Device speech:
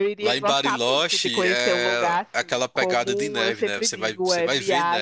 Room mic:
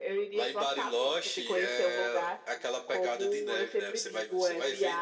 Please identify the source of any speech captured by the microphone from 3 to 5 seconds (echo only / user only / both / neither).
echo only